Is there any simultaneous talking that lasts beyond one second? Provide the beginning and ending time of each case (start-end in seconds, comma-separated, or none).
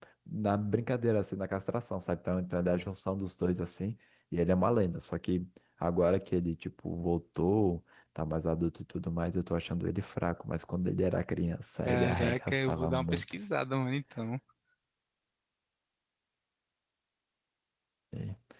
11.9-13.4